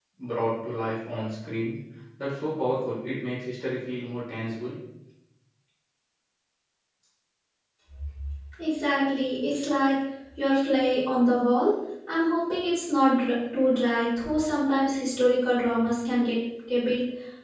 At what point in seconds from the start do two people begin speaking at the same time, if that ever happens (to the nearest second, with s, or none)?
none